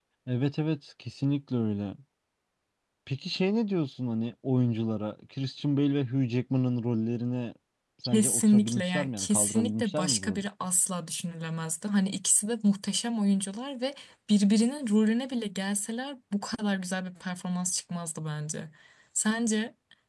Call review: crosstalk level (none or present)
present